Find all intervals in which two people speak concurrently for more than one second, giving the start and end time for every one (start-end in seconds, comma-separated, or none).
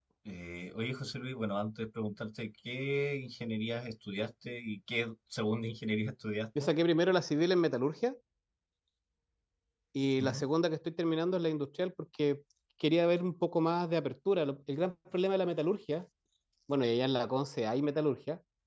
none